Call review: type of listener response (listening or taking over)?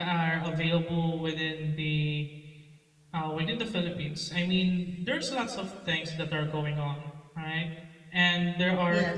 listening